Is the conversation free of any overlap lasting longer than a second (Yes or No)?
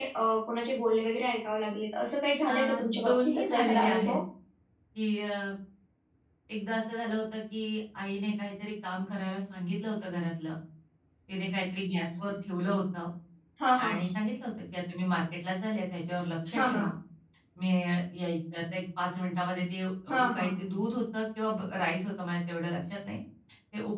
No